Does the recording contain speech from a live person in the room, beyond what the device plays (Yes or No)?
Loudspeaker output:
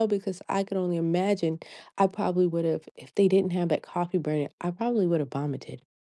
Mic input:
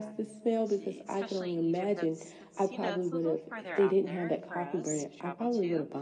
Yes